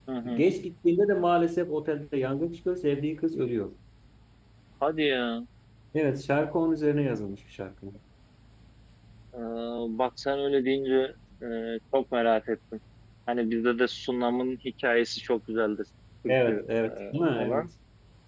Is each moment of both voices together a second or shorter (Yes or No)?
No